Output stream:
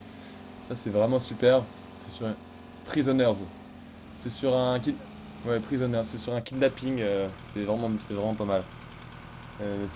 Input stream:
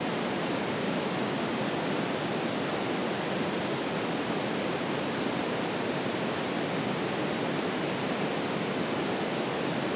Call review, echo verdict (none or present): none